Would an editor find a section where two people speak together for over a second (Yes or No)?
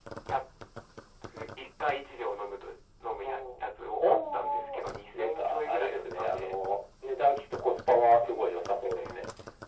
Yes